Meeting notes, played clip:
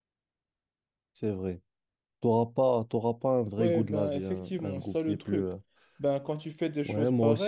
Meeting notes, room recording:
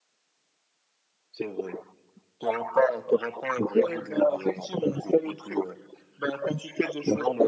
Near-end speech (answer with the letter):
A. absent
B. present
A